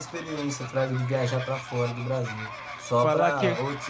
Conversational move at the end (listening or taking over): listening